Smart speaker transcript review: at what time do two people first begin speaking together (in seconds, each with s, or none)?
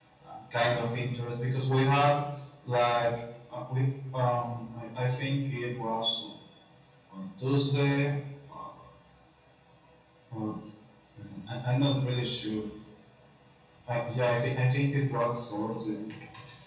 none